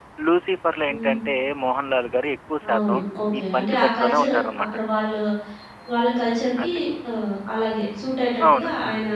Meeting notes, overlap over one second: present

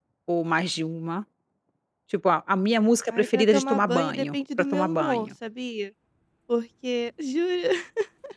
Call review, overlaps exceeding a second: present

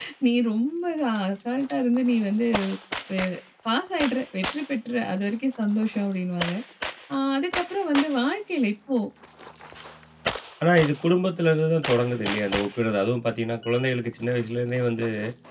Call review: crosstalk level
none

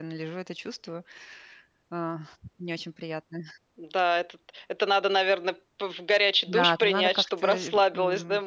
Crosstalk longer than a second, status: present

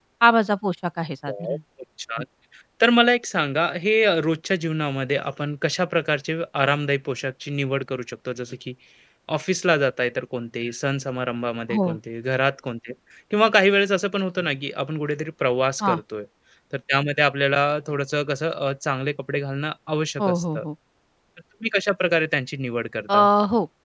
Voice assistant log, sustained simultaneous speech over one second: none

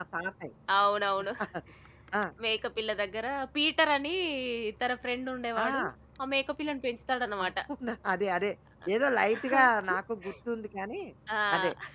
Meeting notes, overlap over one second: none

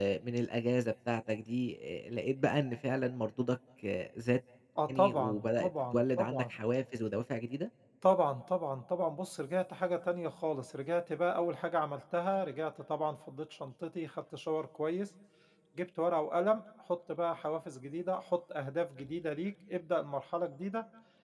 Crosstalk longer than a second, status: present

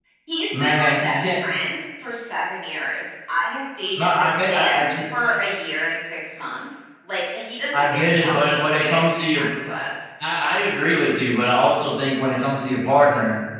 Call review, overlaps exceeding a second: present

